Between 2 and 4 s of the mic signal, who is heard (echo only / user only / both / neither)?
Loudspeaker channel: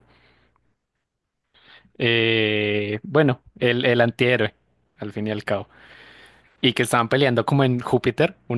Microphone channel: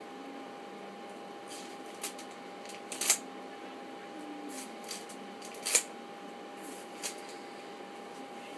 neither